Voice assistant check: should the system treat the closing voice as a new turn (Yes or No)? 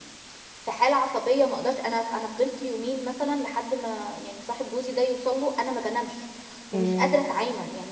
No